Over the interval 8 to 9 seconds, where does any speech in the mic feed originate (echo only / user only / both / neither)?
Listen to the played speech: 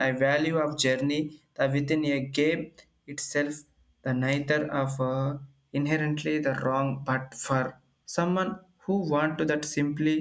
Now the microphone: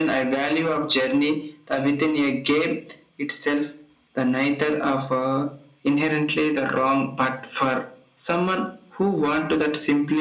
echo only